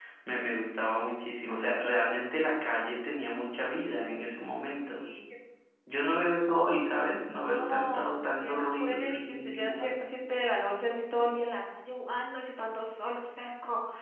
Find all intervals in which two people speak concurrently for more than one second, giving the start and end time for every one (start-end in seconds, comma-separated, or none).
7.4-9.9